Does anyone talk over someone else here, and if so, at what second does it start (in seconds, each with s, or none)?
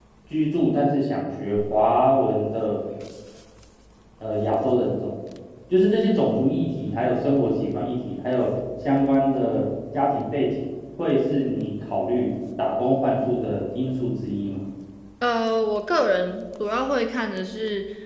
none